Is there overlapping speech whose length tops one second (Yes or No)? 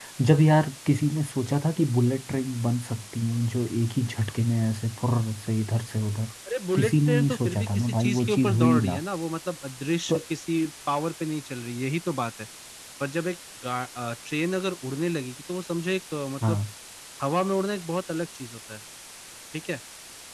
Yes